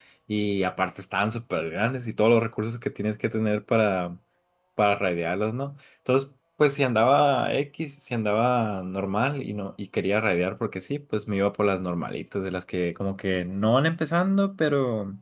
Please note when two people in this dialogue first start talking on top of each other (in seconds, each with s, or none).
none